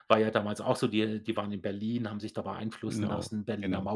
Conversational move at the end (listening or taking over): listening